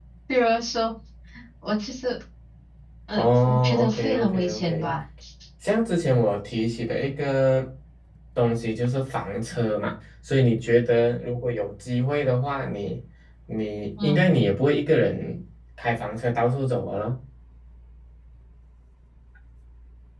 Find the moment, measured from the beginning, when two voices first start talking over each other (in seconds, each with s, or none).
3.1 s